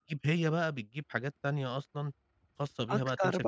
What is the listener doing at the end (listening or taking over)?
listening